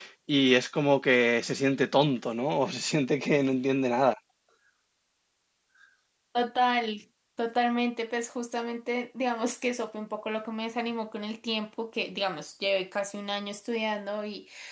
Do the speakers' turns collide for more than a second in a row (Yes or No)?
No